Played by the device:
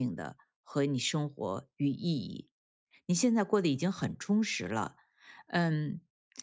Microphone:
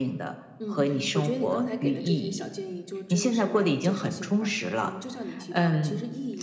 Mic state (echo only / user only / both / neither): both